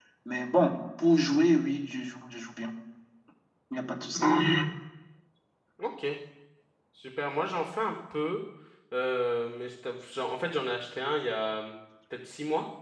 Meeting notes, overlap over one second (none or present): none